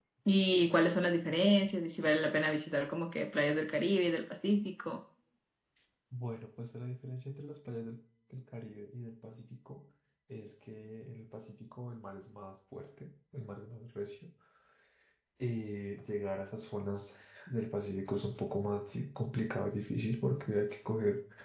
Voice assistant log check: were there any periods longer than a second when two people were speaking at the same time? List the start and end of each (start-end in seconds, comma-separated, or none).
none